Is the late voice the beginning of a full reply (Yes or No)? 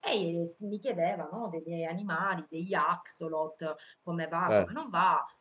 No